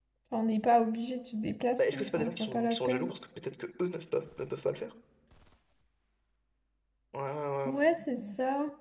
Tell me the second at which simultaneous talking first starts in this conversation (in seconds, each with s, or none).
1.8 s